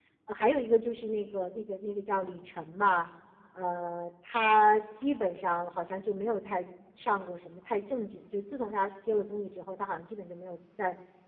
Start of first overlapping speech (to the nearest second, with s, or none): none